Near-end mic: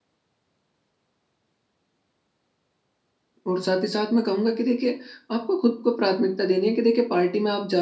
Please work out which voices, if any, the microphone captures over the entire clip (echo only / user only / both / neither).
user only